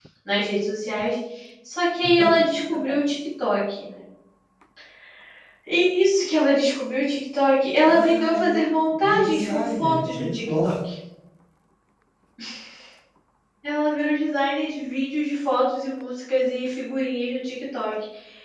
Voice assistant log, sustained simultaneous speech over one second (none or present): present